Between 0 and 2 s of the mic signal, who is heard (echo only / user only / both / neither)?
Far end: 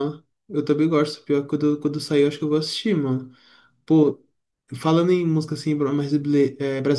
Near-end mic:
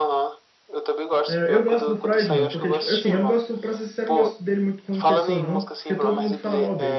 both